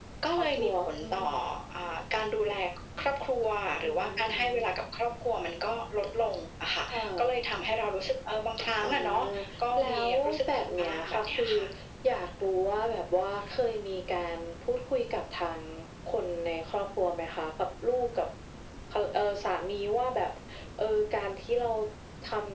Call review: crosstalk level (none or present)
present